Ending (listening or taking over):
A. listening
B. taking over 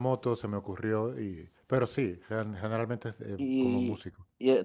B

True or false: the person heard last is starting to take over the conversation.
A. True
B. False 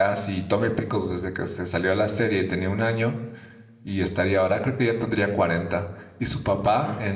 B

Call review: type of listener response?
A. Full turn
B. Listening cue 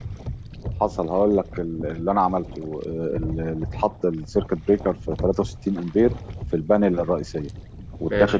B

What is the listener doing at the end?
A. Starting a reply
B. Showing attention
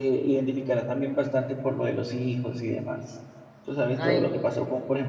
B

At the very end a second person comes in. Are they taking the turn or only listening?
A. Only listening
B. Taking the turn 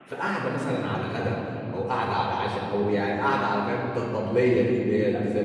B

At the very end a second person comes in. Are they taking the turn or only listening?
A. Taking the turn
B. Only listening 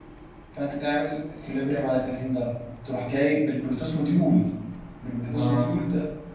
B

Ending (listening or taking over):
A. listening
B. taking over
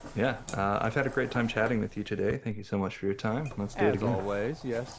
B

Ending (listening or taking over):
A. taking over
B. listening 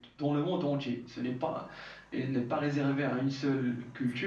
B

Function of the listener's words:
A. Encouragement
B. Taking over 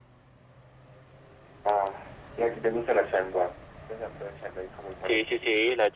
B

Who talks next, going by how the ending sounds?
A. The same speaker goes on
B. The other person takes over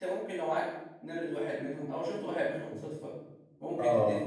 A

